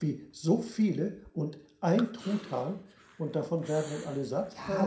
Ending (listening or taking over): taking over